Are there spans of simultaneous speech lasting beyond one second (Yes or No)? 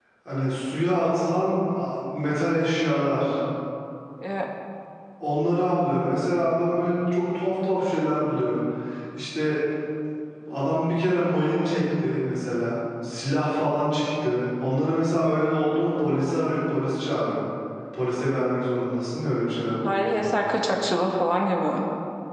No